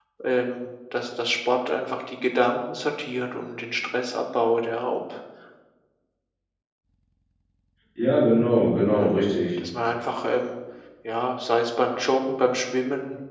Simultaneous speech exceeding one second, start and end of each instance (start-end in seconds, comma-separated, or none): none